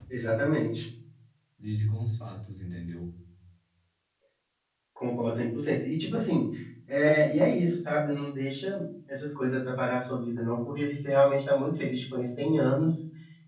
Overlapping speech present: No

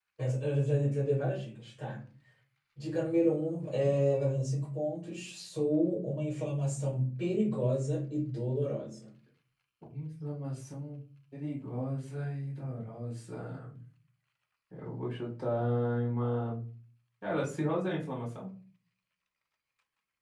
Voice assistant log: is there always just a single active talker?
Yes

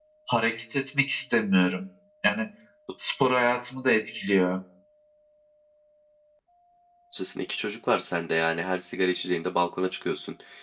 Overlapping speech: No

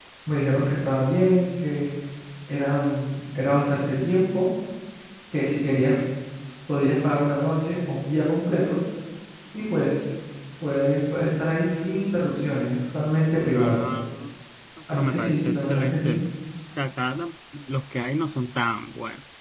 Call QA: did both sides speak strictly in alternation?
No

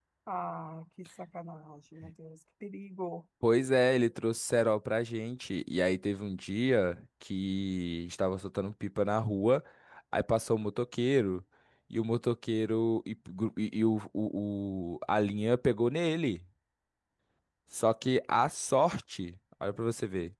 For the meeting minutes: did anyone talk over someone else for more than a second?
No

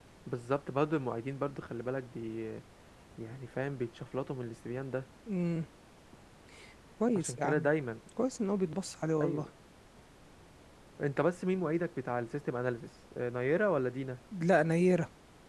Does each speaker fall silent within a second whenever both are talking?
Yes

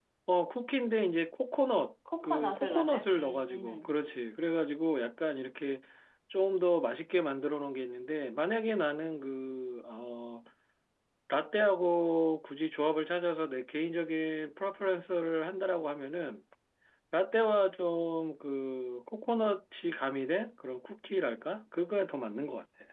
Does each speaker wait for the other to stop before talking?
No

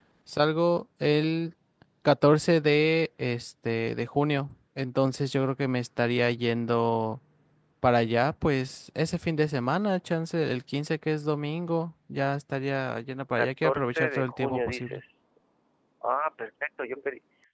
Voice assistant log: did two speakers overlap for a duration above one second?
Yes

